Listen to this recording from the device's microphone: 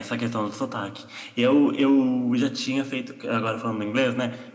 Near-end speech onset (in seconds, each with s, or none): none